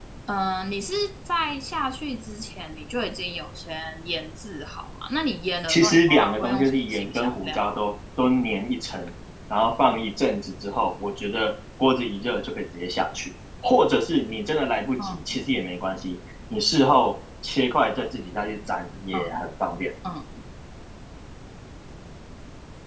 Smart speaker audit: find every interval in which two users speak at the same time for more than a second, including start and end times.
5.7-7.8

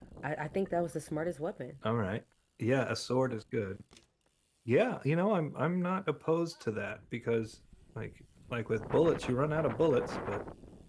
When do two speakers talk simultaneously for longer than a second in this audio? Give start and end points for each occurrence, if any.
none

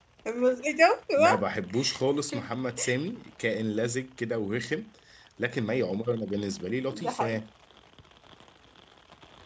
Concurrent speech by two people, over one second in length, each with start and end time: none

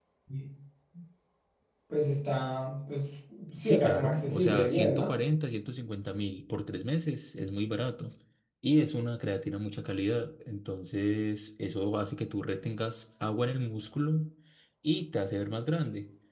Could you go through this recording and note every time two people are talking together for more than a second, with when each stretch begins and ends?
3.6-5.1

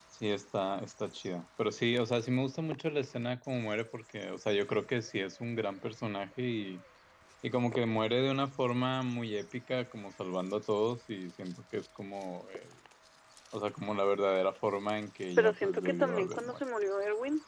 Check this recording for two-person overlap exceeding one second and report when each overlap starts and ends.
15.4-16.6

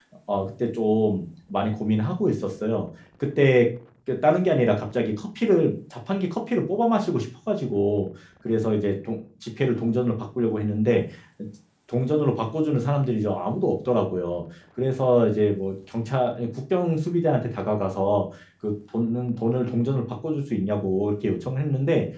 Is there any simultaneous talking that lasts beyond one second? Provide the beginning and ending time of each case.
none

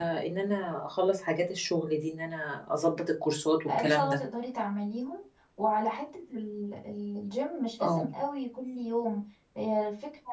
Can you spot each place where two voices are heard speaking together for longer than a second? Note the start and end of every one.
none

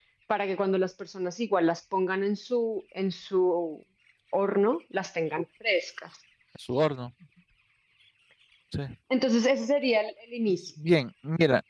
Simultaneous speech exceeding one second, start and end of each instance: none

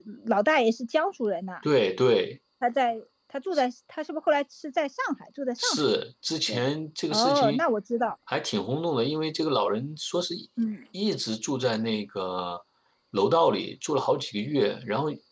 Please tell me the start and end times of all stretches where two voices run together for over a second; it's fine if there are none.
none

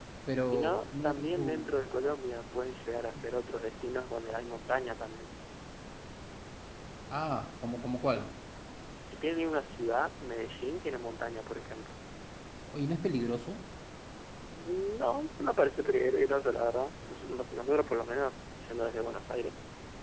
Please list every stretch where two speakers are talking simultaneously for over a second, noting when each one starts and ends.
0.5-1.7

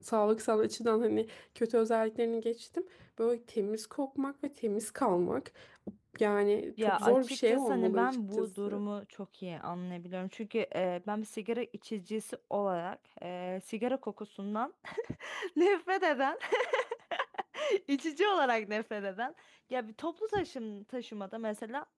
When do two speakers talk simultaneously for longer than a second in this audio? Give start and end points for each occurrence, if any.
6.8-8.8

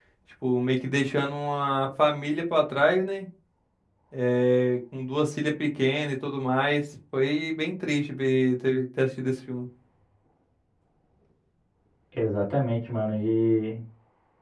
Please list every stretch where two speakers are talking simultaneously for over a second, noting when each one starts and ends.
none

